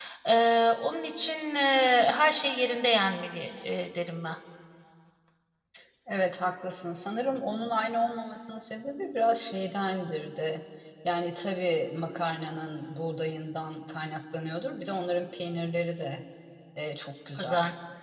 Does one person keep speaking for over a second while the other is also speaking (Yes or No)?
No